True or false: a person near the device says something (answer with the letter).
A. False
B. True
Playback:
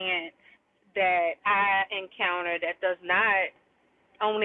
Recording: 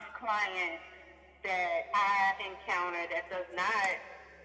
A